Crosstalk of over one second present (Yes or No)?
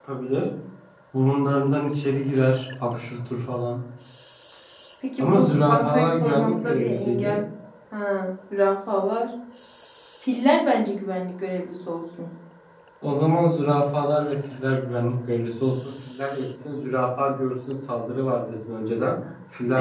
Yes